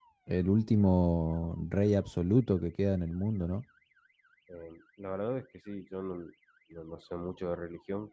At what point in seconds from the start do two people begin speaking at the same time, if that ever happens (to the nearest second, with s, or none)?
none